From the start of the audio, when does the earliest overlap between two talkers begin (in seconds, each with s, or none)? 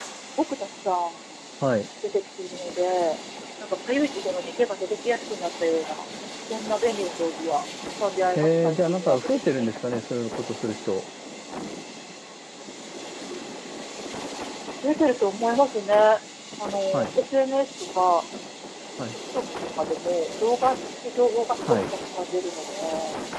8.3 s